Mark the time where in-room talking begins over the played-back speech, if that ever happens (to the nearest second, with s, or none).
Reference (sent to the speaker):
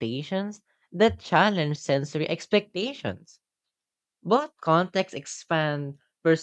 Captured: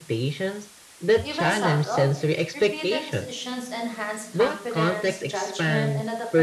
1 s